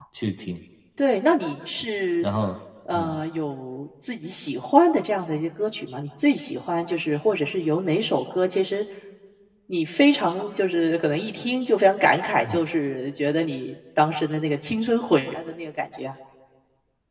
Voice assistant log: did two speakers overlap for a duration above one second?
No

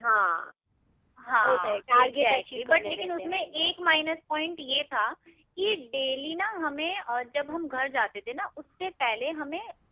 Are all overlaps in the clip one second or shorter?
No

